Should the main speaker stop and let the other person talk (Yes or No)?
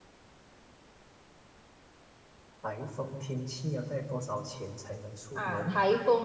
Yes